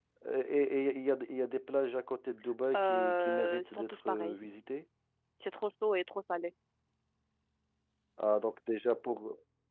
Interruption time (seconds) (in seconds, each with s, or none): 2.7 s